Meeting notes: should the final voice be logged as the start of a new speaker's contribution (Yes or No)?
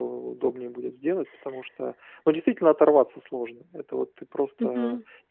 No